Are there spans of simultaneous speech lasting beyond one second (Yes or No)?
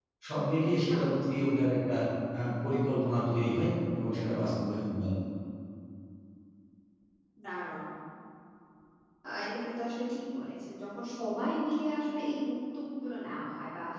No